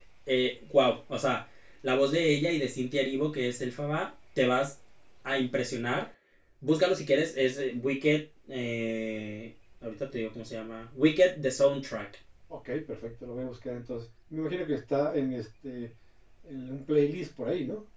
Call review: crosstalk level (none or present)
none